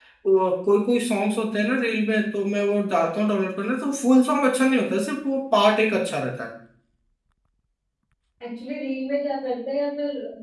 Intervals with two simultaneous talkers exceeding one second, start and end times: none

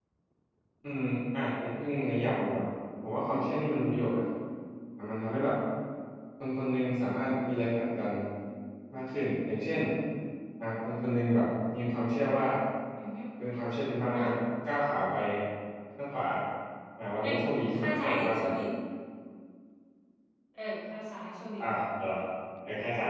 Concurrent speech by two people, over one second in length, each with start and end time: 17.2-18.4

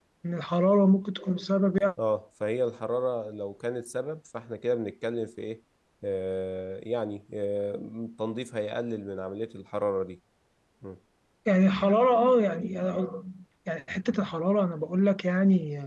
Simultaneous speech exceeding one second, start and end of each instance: none

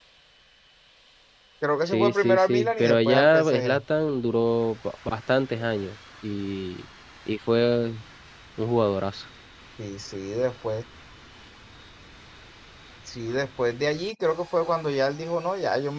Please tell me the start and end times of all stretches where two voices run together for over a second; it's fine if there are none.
1.9-3.8

